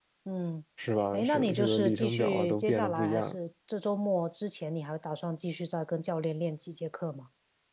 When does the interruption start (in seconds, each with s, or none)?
1.1 s